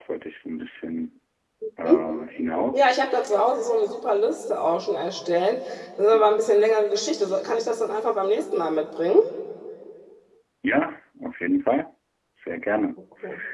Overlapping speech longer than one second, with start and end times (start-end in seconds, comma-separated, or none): none